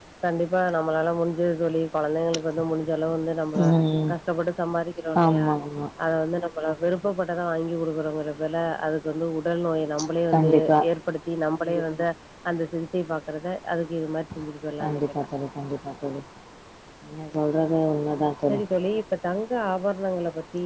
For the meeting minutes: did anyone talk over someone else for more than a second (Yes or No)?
No